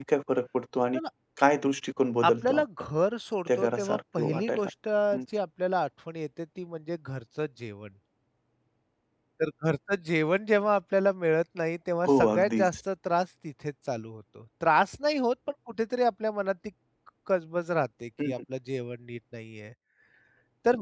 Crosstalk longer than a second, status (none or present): present